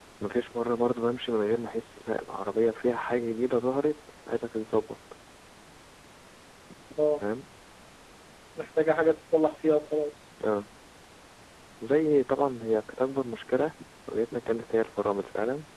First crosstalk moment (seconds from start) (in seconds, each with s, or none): none